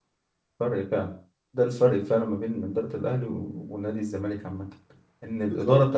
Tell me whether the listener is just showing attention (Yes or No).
Yes